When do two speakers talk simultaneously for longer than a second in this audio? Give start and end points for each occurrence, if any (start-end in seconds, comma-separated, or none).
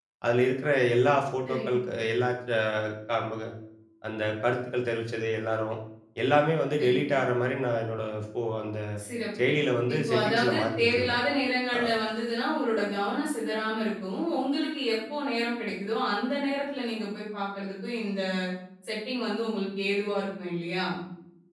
9.9-11.2